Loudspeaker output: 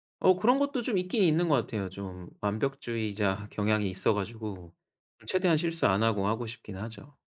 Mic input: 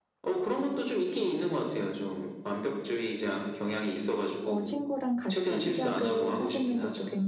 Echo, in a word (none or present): present